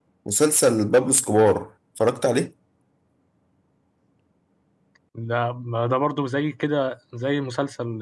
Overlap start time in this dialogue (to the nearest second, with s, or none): none